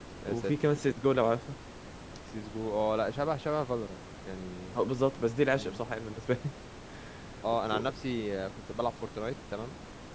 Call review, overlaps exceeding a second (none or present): none